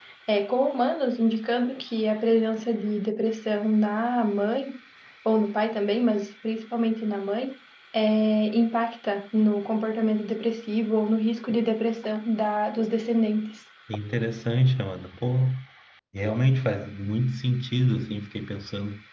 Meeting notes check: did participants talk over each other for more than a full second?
No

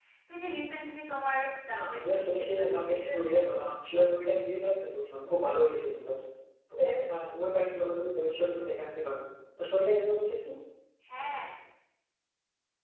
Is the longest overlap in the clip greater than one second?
Yes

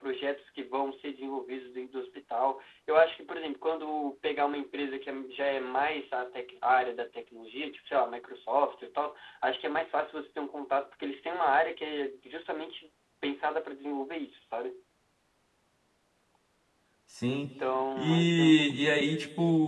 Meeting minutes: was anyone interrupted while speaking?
Yes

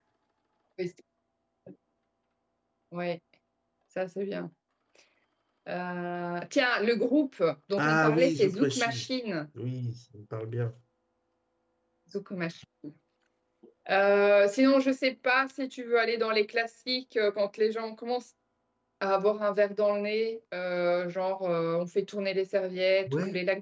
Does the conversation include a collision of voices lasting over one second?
Yes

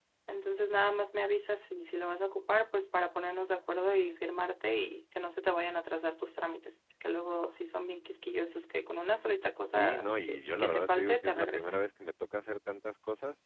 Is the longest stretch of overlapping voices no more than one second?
No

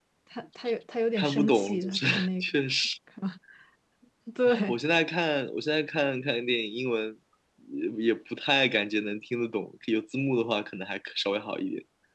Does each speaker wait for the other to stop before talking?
No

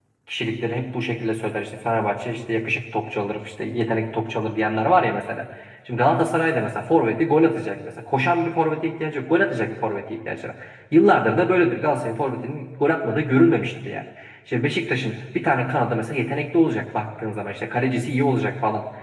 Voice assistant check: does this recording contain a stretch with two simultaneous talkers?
No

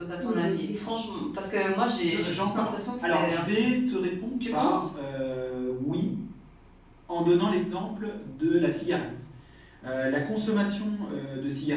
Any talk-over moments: Yes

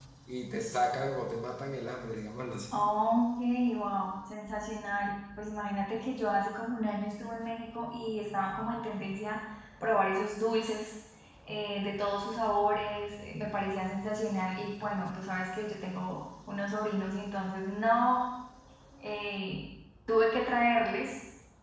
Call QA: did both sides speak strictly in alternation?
Yes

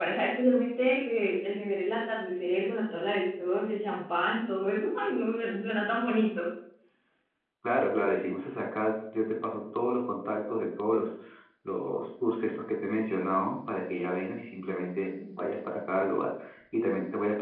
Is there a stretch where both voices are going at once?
No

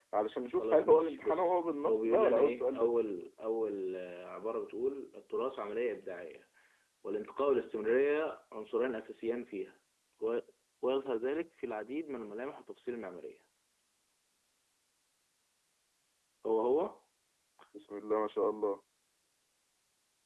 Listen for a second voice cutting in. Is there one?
Yes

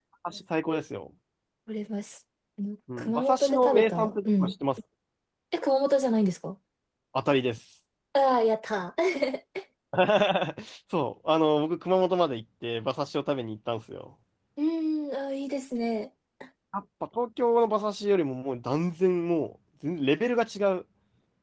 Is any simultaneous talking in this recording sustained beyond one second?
Yes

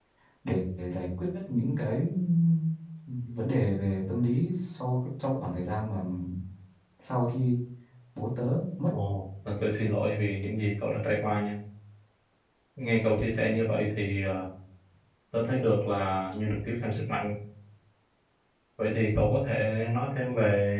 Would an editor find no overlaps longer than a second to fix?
Yes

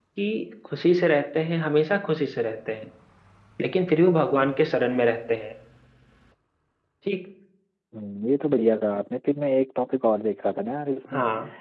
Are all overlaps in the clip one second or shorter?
Yes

